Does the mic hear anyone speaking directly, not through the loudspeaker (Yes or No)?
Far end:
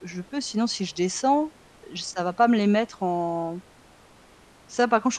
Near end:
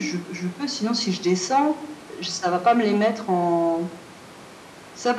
No